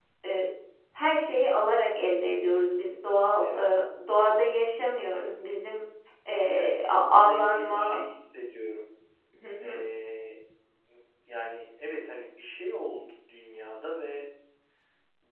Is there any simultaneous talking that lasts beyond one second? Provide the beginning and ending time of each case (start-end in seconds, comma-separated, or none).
6.5-8.0